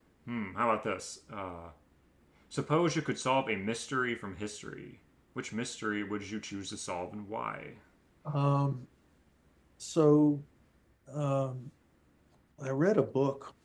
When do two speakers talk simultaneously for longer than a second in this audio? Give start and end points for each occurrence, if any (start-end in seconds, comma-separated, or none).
none